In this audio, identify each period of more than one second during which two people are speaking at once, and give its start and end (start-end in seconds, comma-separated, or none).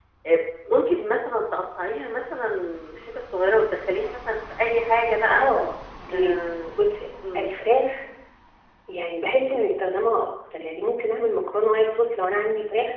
none